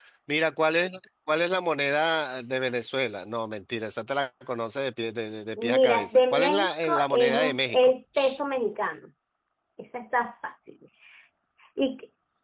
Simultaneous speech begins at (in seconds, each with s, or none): 5.6 s